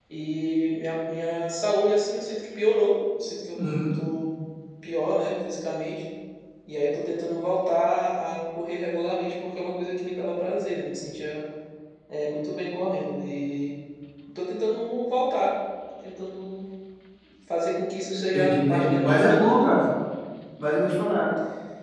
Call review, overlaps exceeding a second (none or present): present